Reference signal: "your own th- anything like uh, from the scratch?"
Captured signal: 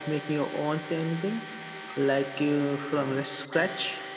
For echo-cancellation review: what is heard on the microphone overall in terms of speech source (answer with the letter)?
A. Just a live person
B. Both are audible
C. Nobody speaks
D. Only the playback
D